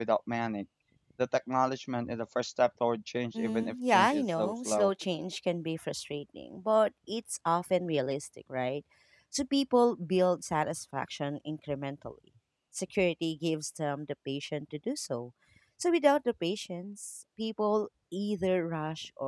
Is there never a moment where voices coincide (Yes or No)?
No